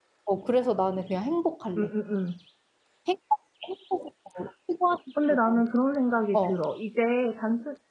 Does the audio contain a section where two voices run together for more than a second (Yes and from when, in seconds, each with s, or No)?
No